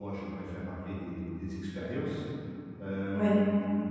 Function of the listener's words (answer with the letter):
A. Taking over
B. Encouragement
B